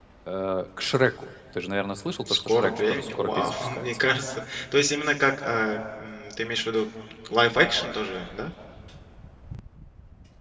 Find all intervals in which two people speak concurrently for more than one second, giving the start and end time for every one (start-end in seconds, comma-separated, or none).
2.2-4.0